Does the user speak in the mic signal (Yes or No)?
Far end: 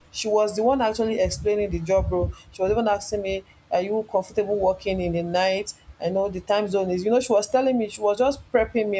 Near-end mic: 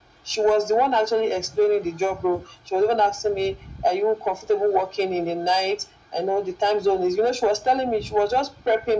No